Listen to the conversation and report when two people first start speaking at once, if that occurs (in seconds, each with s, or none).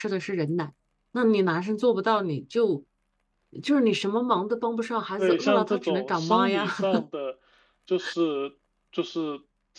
5.2 s